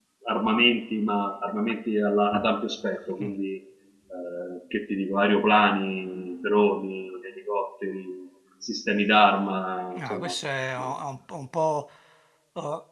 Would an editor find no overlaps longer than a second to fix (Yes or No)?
Yes